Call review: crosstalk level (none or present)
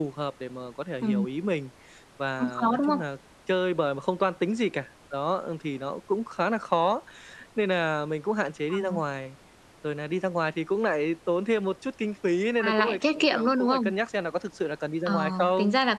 present